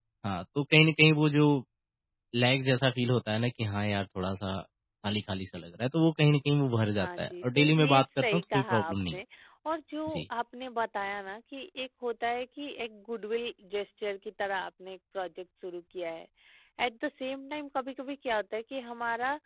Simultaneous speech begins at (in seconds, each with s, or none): 7.0 s